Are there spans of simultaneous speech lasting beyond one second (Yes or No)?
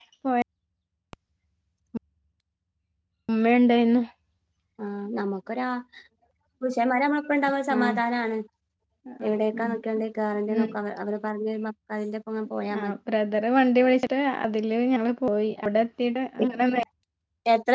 No